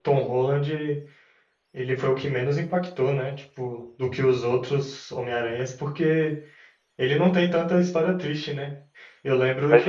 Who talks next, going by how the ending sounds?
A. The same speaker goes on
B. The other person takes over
A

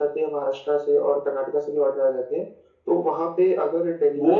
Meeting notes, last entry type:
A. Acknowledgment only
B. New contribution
B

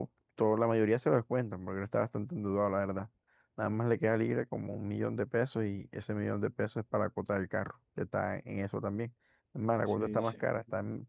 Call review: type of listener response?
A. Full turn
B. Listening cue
B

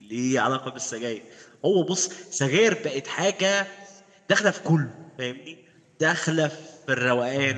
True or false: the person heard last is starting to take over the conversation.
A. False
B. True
A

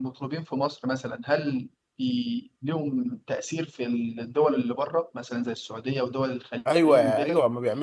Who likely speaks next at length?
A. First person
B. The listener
B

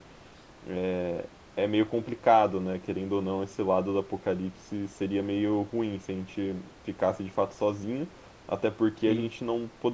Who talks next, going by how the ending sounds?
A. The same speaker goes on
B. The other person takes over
A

